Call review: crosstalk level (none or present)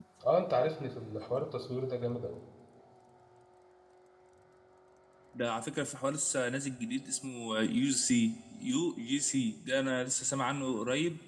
none